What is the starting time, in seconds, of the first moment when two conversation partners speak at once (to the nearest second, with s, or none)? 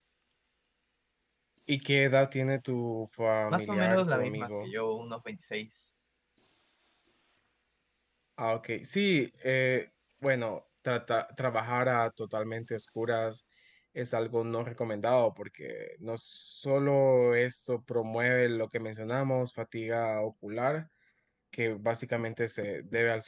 4 s